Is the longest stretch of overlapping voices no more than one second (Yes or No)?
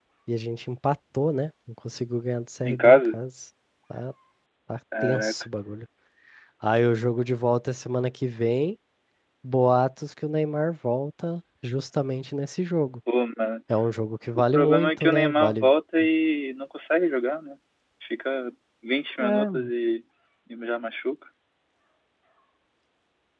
No